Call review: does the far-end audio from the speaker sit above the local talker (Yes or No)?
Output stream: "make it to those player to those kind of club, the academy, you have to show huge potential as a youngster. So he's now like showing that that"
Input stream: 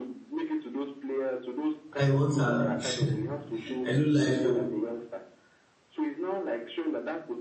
No